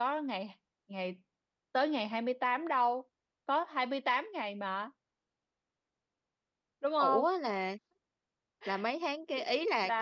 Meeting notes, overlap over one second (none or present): none